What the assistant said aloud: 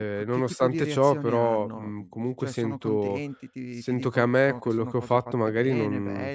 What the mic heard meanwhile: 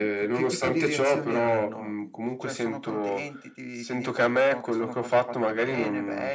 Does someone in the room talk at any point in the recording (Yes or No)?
No